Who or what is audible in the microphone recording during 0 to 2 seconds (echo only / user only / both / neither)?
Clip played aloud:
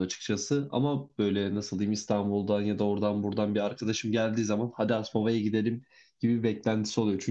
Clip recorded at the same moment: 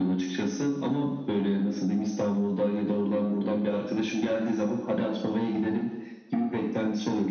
echo only